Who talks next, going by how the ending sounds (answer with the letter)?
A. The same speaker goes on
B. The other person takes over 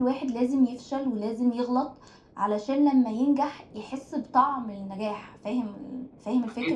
B